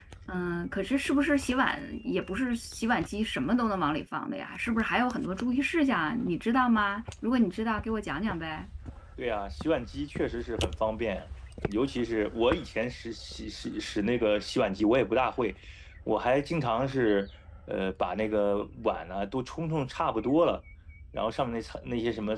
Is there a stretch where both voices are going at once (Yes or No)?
No